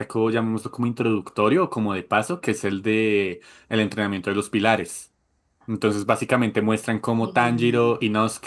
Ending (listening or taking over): listening